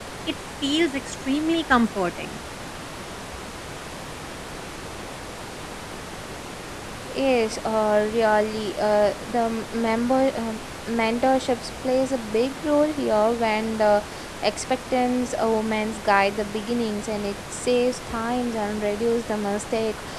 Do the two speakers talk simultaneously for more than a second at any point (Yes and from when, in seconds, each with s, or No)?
No